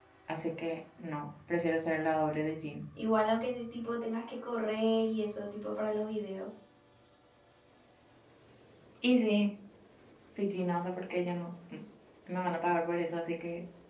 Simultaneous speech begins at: none

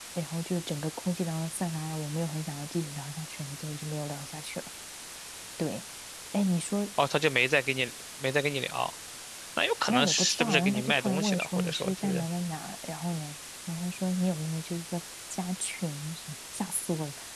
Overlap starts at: 9.9 s

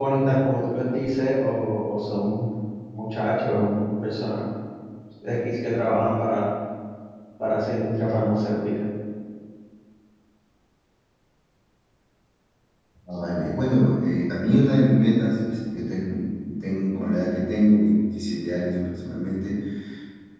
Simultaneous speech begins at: none

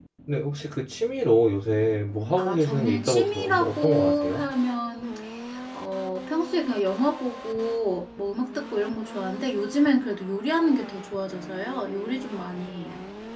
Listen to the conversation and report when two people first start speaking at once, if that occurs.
2.4 s

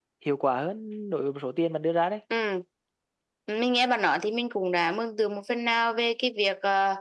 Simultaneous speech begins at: none

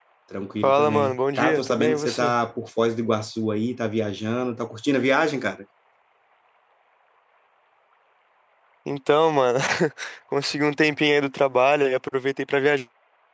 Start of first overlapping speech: 0.6 s

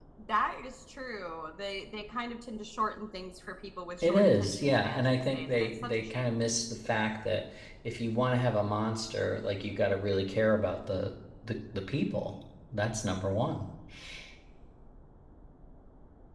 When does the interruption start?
4.0 s

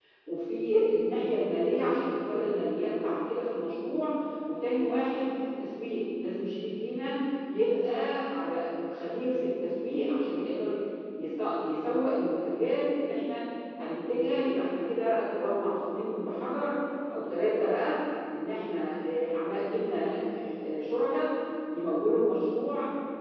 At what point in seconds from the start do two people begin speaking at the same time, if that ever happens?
none

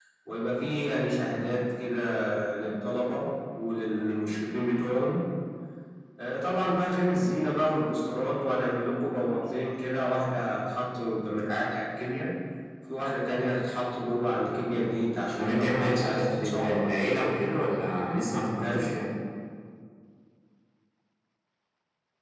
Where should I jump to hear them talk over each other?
15.4 s

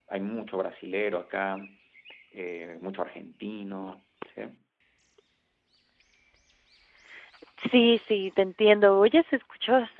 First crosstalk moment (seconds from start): none

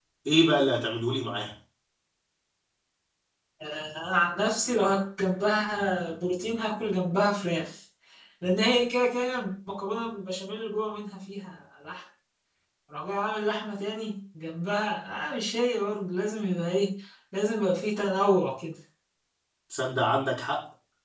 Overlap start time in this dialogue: none

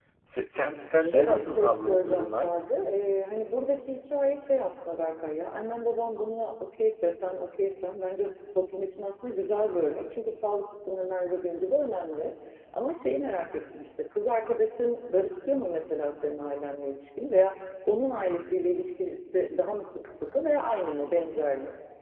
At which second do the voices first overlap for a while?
1.0 s

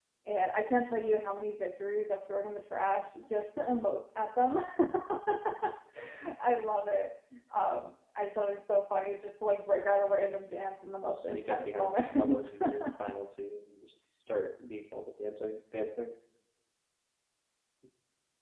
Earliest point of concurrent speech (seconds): 11.1 s

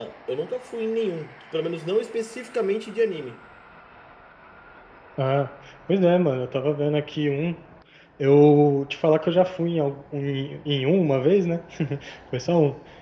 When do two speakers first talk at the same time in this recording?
none

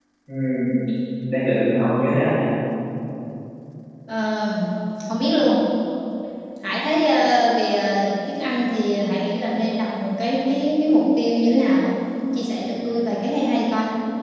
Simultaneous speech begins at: none

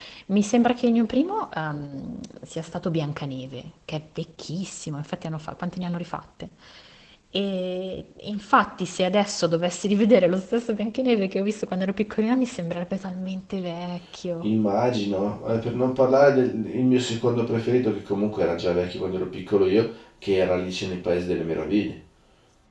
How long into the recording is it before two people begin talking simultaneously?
none

